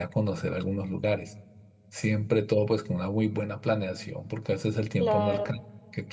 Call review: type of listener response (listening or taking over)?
listening